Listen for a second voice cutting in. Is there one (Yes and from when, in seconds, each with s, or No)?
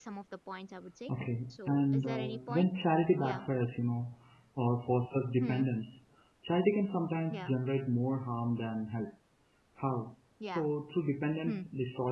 Yes, from 1.5 s